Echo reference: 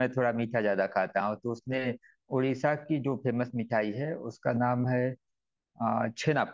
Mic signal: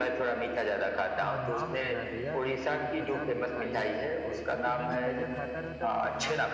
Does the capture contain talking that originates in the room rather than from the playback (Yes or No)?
Yes